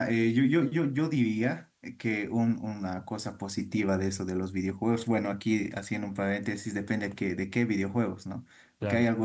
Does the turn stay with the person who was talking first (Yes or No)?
Yes